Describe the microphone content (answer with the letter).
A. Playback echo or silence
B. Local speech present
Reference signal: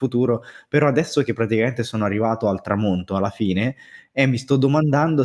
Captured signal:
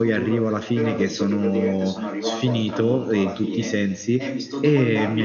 B